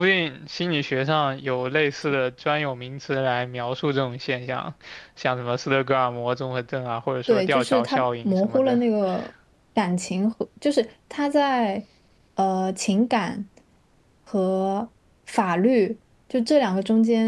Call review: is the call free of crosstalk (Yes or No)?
No